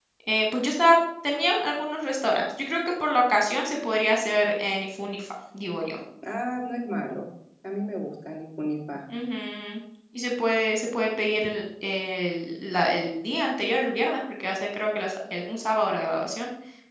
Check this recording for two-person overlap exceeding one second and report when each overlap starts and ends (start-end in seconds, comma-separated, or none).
none